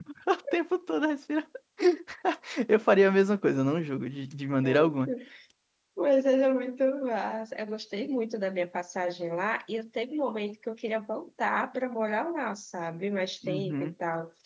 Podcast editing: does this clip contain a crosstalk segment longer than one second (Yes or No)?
No